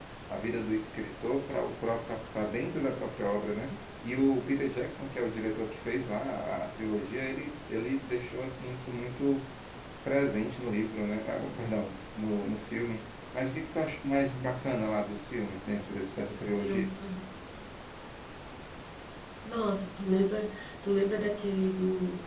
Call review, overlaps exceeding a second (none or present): none